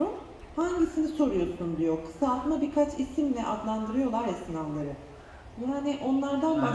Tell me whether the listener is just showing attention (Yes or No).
Yes